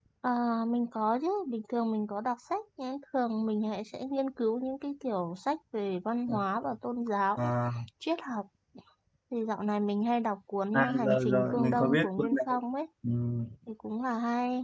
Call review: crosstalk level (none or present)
present